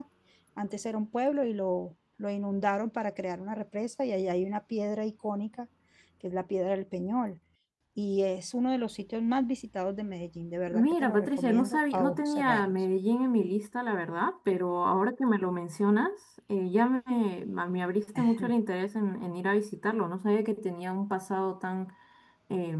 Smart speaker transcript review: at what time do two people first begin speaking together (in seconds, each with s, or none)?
10.7 s